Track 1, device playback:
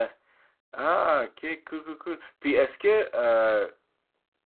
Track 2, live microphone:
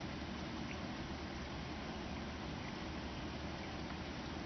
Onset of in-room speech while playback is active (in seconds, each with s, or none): none